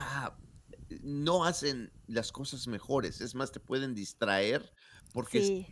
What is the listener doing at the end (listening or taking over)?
listening